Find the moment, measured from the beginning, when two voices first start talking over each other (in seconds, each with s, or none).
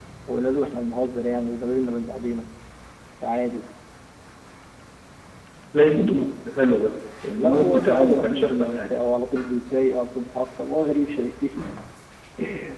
7.3 s